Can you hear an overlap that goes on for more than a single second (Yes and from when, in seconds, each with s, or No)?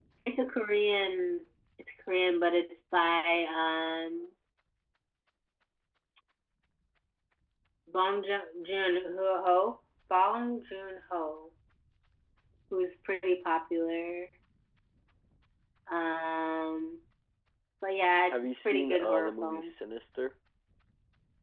Yes, from 18.3 s